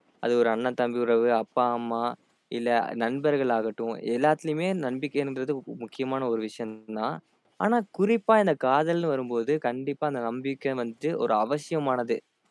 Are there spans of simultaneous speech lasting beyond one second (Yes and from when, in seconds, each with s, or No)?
No